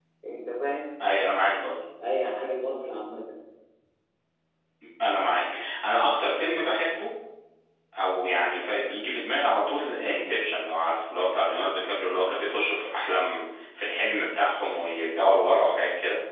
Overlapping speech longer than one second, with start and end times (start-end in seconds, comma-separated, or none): none